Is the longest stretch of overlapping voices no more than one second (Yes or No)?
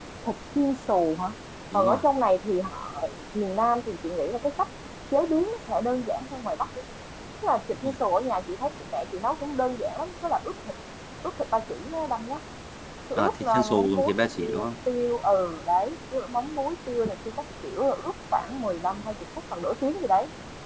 No